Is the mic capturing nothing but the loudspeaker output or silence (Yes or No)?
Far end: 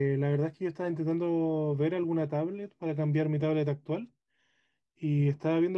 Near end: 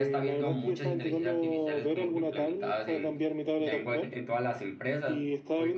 No